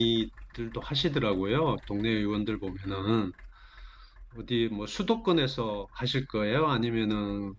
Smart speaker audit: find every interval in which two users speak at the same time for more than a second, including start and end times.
none

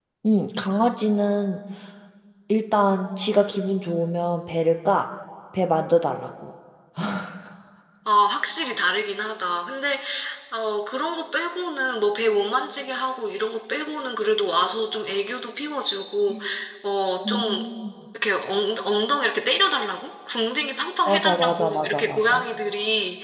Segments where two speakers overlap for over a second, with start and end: 21.1-22.4

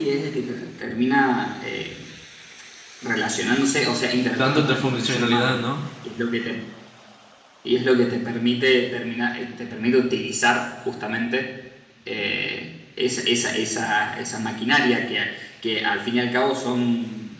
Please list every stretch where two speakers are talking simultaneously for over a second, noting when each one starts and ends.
4.3-5.6

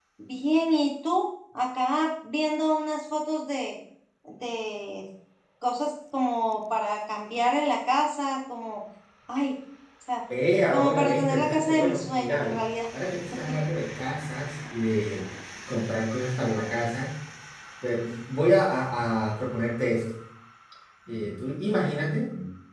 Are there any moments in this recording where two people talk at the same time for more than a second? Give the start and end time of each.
10.7-12.6

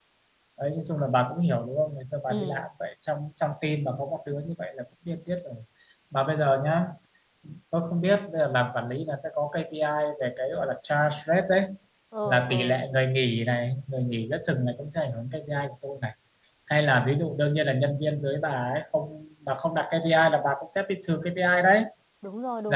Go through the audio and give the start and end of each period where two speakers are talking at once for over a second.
none

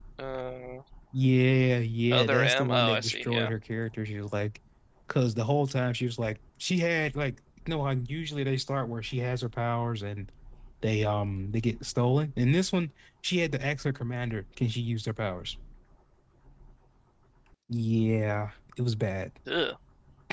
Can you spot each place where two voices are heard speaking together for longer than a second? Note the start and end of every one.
2.1-3.5

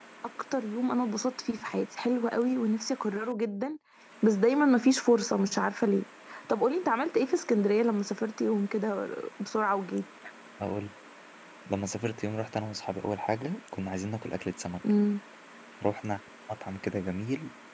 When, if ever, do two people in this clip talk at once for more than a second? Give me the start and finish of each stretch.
none

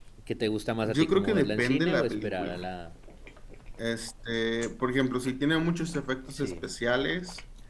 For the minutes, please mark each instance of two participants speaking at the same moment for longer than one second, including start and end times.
0.8-2.6

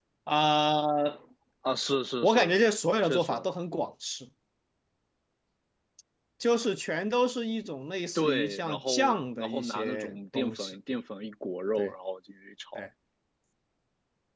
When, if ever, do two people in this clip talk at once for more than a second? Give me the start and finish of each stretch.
8.2-10.8

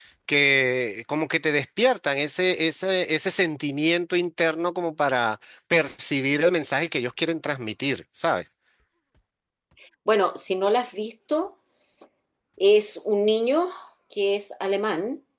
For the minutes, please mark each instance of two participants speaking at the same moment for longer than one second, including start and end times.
none

